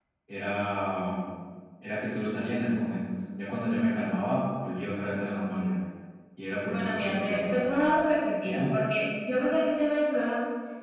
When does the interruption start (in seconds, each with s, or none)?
6.7 s